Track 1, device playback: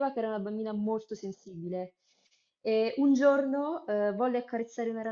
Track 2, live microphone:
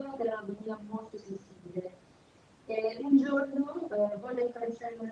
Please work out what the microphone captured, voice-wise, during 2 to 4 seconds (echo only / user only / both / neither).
echo only